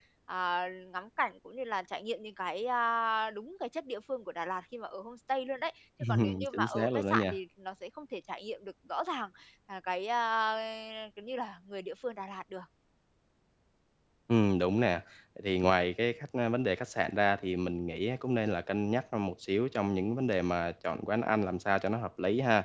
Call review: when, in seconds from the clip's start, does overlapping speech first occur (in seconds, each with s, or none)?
6.0 s